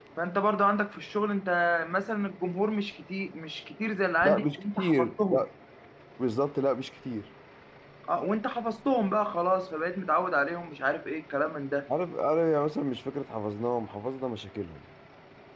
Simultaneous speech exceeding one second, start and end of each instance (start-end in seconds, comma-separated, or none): 4.2-5.5